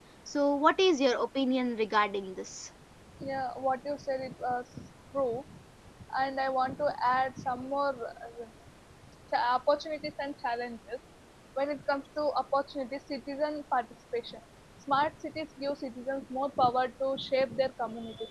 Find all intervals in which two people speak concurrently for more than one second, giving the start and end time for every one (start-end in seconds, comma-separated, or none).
none